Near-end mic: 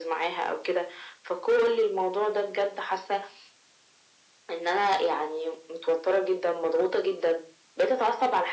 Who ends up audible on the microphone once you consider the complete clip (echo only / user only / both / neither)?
echo only